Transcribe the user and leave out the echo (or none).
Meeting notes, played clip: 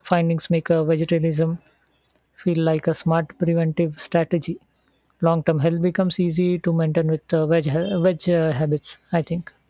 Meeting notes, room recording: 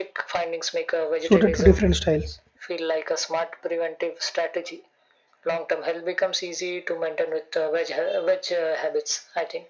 suited to different styles.